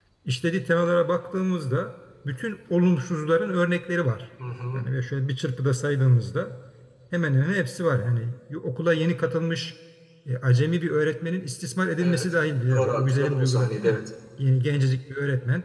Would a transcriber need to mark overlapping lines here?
Yes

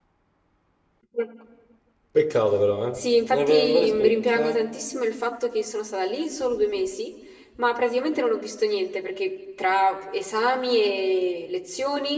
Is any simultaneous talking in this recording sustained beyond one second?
Yes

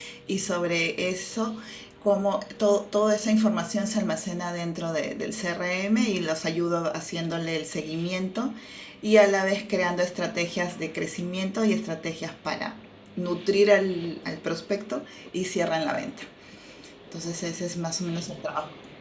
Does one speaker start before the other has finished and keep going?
No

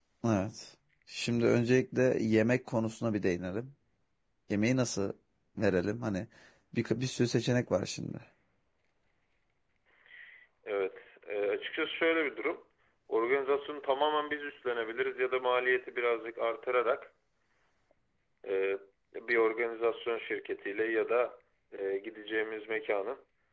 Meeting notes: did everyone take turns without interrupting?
Yes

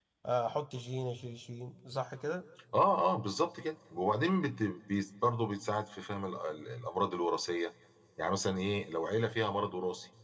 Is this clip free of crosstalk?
Yes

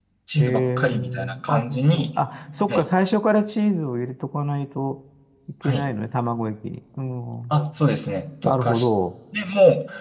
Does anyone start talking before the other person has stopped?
Yes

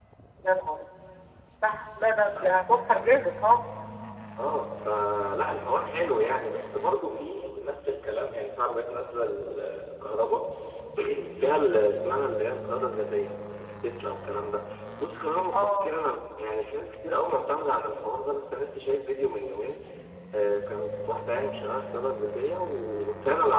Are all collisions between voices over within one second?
Yes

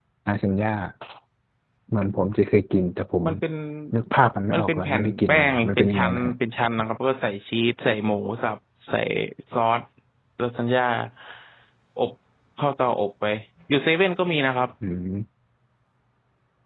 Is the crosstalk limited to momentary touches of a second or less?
No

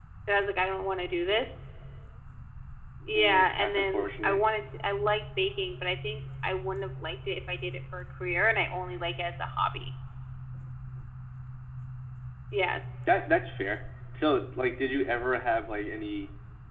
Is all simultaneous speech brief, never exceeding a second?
No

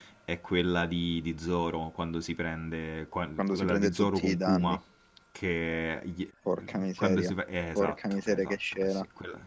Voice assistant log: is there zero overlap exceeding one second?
No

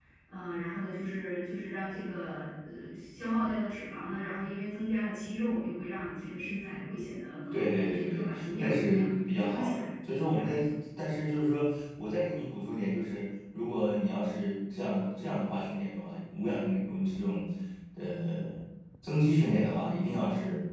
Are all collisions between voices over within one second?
No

